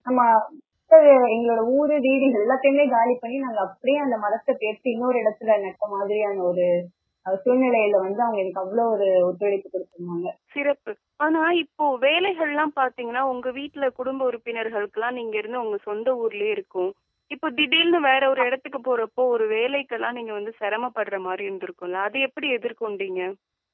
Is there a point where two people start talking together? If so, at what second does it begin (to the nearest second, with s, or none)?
none